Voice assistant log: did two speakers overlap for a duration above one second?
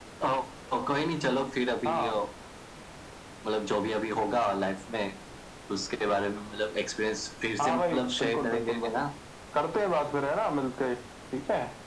Yes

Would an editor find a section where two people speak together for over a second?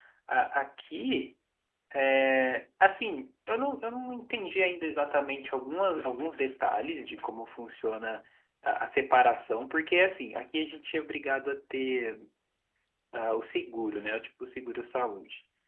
No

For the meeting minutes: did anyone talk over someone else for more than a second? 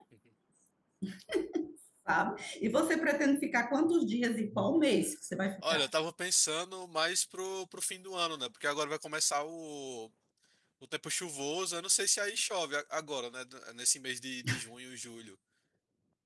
No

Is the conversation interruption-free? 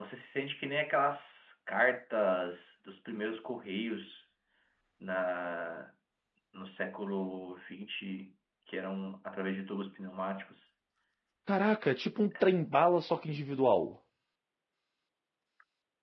Yes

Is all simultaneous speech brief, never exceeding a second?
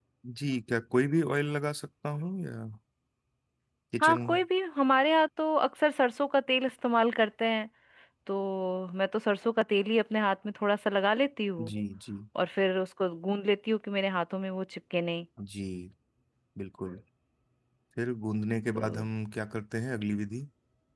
Yes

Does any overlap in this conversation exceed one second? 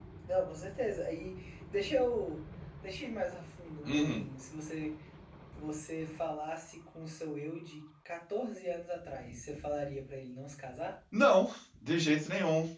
No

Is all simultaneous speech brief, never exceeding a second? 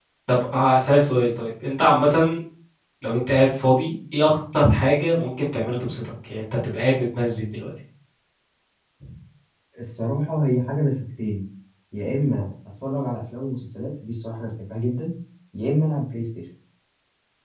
Yes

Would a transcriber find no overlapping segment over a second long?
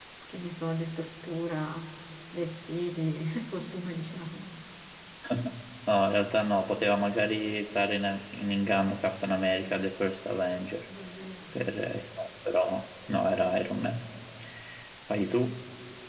Yes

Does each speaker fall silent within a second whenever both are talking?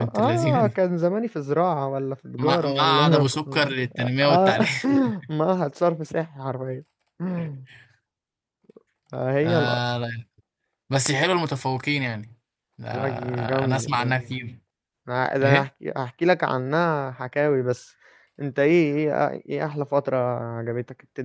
No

